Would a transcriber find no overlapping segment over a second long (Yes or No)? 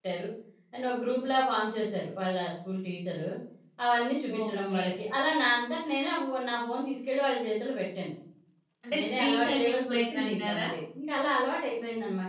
No